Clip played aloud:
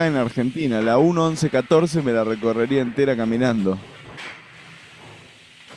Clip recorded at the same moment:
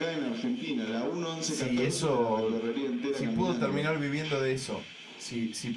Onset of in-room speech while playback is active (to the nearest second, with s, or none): 1 s